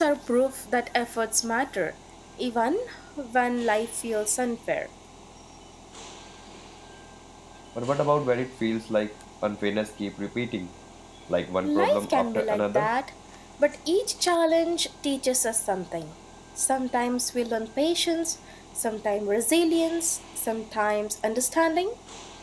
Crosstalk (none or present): present